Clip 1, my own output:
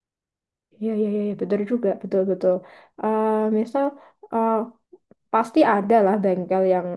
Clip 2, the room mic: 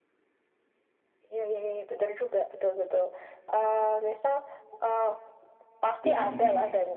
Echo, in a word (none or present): present